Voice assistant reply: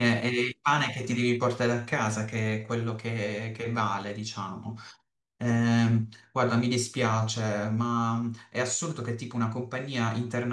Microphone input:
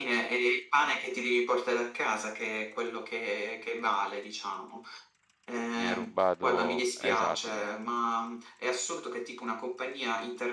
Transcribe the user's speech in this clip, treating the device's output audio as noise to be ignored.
mi hai rubato, esatto, mi,

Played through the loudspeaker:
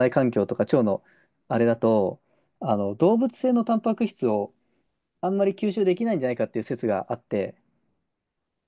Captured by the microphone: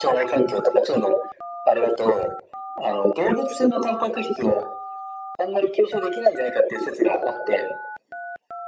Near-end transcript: none

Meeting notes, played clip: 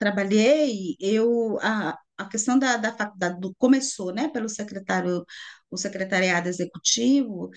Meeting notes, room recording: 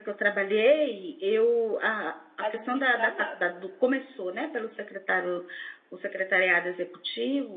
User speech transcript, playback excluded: administrar nada.

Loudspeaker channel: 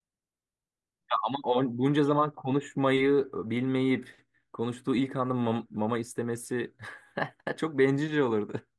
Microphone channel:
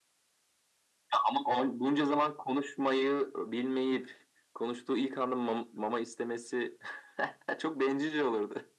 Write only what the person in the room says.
none

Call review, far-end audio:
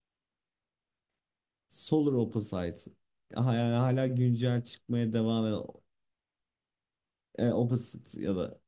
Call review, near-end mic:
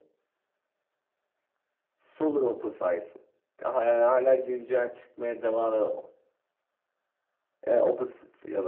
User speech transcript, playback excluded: none

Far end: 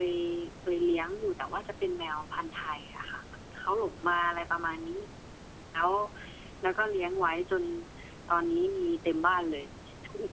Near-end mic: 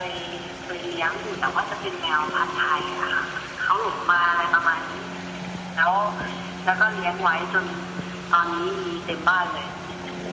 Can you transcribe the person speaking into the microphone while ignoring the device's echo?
none

